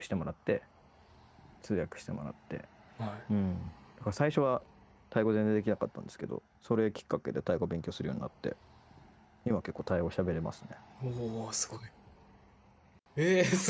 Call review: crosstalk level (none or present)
none